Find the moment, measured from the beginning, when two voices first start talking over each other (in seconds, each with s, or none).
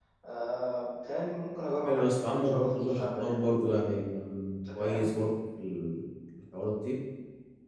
1.9 s